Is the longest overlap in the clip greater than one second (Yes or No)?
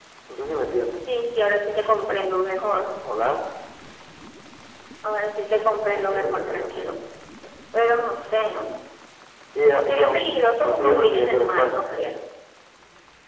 Yes